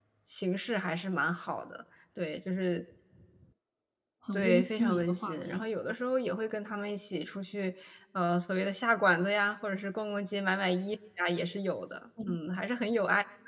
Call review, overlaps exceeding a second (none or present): present